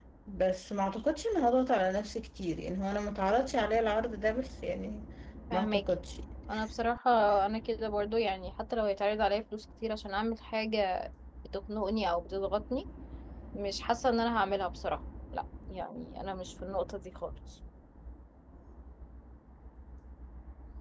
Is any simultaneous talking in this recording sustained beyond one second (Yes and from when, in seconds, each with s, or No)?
No